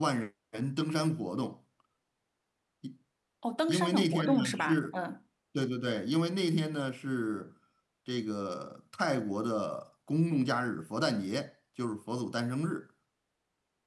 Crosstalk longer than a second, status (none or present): present